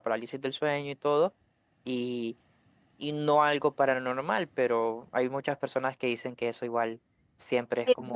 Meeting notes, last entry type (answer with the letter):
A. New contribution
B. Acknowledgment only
A